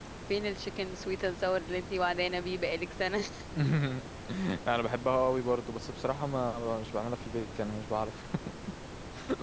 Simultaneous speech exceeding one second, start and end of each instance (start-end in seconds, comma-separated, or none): none